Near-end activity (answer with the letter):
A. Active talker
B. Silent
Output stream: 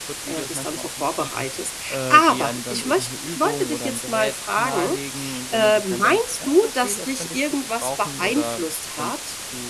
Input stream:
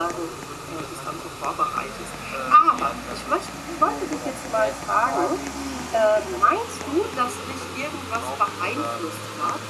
B